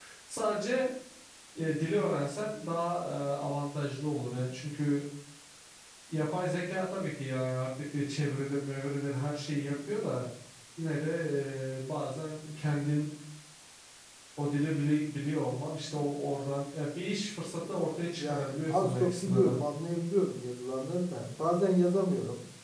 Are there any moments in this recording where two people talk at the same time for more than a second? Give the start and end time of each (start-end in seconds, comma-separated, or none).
18.1-19.6